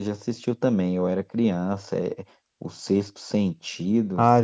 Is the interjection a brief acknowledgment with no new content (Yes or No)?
No